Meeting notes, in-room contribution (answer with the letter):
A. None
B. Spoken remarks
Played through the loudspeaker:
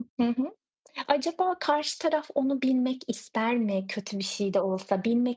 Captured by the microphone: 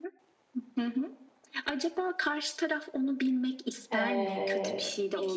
B